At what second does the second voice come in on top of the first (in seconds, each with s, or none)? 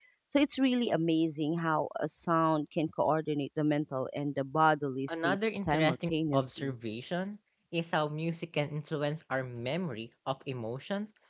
5.1 s